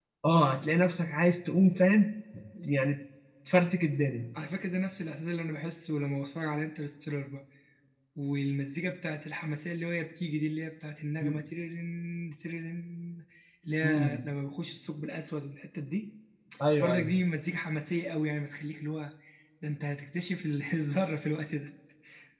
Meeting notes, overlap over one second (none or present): none